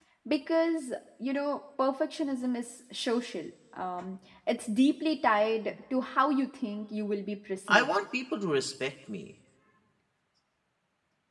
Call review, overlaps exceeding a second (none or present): none